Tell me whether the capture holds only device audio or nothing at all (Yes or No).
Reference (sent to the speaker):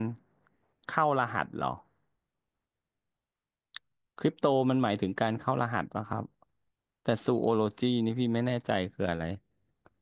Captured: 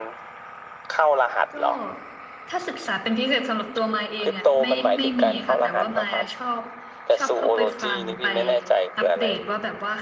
No